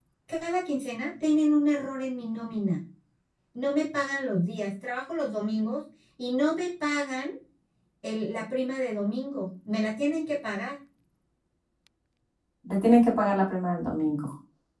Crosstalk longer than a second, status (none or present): none